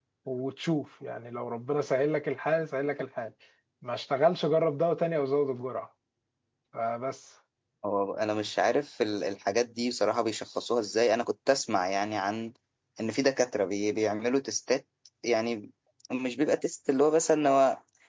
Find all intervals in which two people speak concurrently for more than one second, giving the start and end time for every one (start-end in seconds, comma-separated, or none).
none